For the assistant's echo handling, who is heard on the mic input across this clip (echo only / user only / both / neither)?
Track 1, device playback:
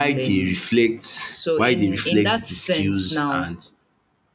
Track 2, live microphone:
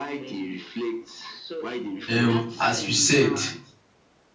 both